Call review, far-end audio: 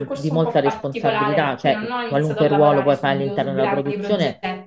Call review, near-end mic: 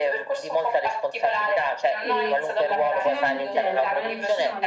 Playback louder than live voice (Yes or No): Yes